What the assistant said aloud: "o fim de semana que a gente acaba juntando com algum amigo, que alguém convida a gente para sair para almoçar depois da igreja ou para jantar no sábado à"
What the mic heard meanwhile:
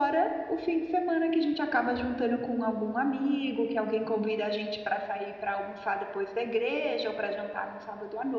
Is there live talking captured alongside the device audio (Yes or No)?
No